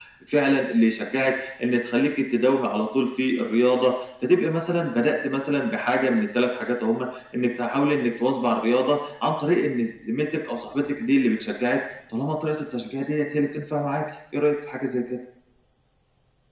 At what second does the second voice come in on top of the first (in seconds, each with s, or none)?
none